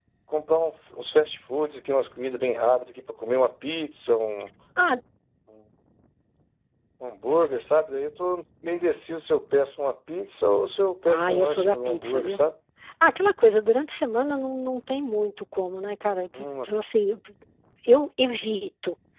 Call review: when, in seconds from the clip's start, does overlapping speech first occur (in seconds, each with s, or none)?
11.1 s